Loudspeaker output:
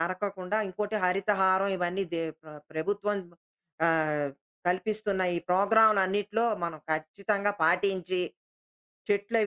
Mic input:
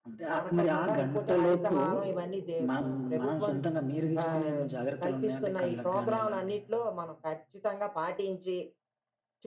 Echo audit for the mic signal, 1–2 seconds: both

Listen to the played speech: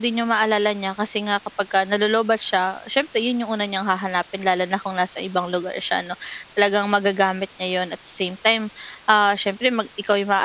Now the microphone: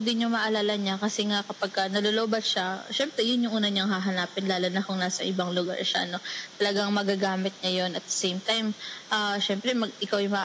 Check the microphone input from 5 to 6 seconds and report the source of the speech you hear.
echo only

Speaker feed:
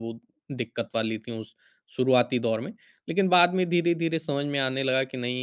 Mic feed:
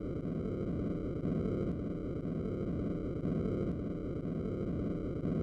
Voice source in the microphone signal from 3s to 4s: neither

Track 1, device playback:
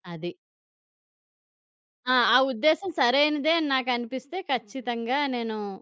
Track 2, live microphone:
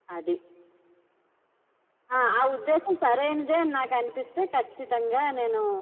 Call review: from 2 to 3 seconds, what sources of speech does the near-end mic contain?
echo only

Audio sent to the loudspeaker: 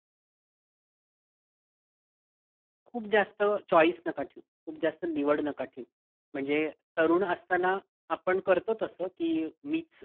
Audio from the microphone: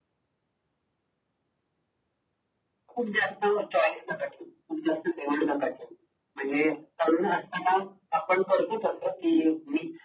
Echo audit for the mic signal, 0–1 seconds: neither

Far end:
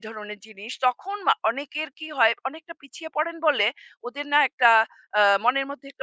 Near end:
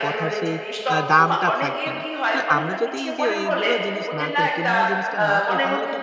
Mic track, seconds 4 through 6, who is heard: both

